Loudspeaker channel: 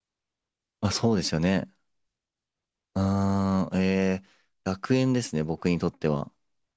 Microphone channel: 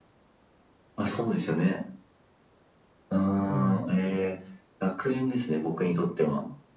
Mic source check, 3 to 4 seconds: both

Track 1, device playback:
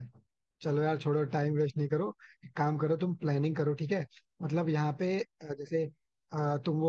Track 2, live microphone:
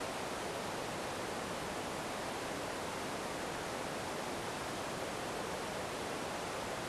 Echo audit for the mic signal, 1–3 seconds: neither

